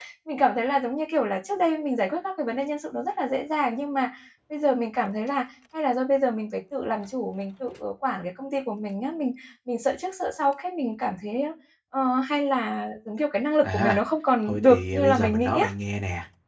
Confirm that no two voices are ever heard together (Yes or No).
No